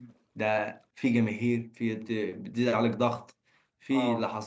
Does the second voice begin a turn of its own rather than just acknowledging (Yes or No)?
No